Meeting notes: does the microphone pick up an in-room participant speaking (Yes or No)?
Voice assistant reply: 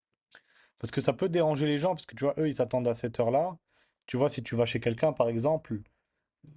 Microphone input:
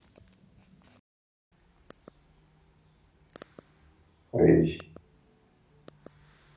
Yes